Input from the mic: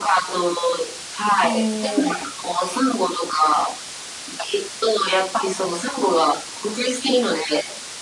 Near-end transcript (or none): ええ、